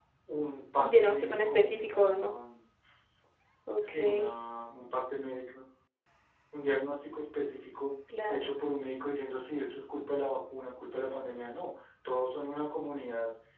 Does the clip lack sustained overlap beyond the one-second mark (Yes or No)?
No